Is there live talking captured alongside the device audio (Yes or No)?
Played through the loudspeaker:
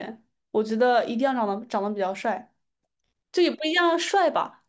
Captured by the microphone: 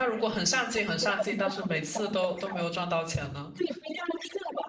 Yes